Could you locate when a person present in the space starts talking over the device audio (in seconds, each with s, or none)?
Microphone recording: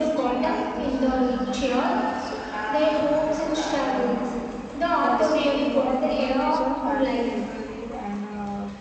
5.0 s